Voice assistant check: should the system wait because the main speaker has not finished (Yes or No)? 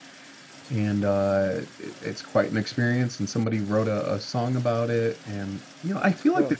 Yes